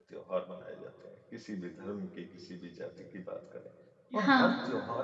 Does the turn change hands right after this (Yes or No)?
No